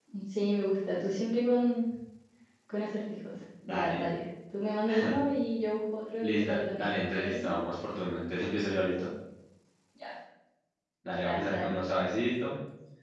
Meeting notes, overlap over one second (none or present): present